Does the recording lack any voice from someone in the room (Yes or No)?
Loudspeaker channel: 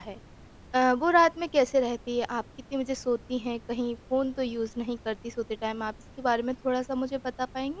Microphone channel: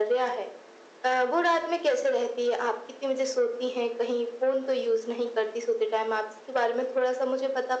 Yes